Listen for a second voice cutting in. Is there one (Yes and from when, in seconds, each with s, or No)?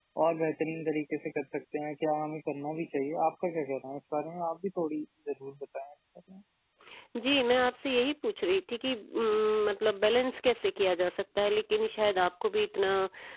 No